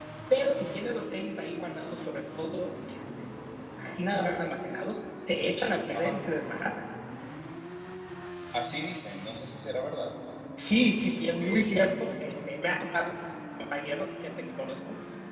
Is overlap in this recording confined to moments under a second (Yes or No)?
Yes